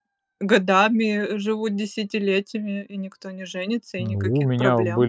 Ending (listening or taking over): taking over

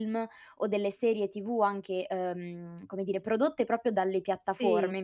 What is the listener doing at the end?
listening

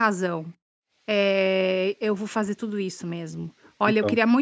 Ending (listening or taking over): listening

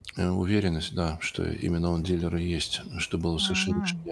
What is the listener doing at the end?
taking over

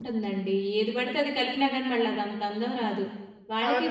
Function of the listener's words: listening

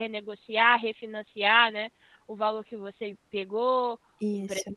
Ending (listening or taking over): listening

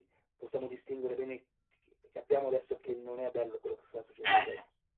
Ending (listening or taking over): taking over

